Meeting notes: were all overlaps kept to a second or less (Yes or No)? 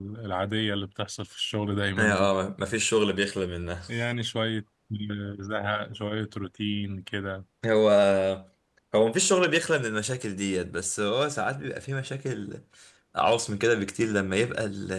Yes